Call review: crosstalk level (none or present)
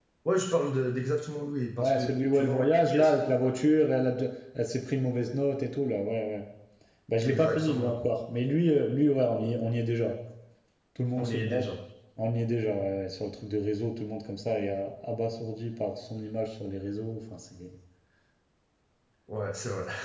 present